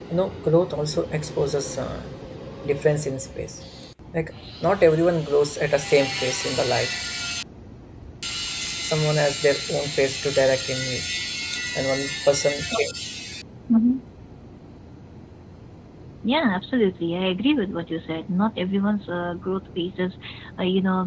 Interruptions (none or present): none